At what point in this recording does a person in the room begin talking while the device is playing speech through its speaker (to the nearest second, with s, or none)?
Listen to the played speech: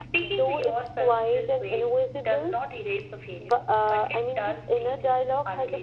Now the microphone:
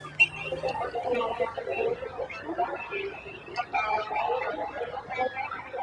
none